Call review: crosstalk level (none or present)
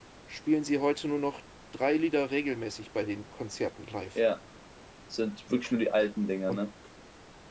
none